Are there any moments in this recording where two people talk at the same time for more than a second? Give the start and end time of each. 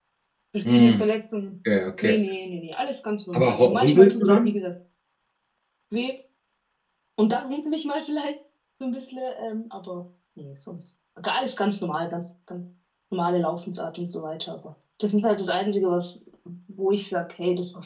3.3-4.5

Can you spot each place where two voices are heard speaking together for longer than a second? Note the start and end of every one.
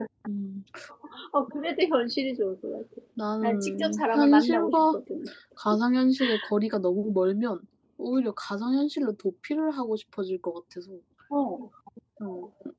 3.4-5.0

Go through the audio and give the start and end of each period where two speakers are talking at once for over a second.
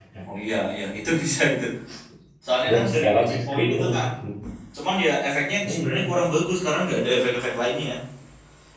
2.7-4.1

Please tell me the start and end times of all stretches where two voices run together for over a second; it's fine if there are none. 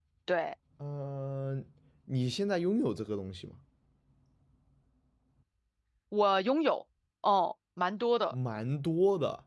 none

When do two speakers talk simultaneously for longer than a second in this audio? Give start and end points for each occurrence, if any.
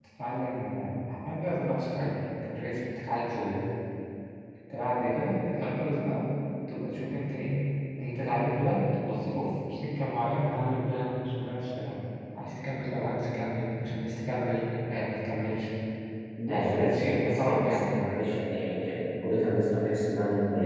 16.5-18.2

